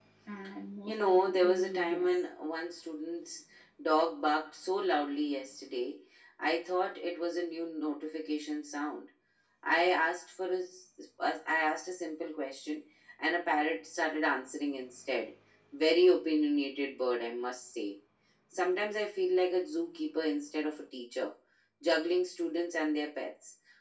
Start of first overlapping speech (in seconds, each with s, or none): 0.9 s